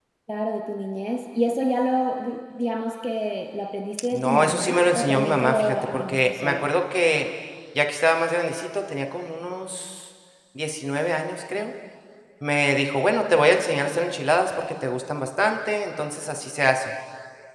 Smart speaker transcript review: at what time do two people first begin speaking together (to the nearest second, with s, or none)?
4 s